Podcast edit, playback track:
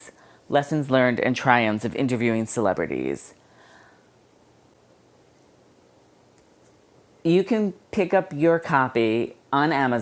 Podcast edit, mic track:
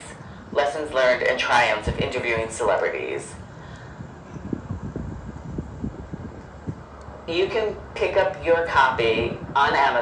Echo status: present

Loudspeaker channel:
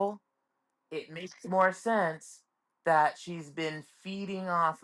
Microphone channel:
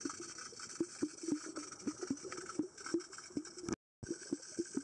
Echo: none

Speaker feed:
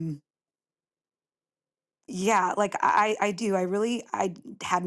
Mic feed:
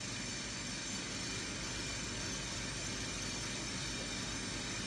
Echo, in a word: none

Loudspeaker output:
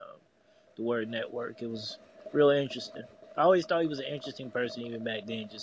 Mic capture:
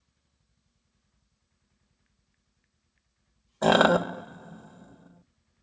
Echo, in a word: none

